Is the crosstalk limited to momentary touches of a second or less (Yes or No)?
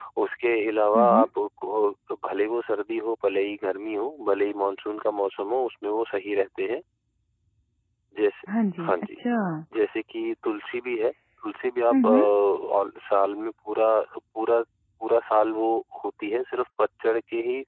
Yes